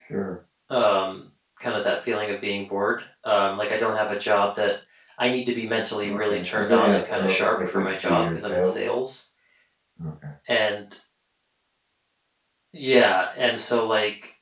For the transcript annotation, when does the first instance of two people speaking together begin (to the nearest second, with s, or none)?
6 s